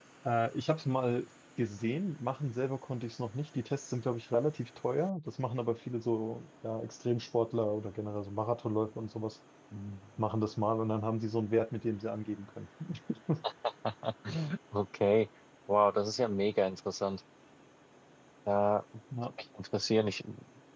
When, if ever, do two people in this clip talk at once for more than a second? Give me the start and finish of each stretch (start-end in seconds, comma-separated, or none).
none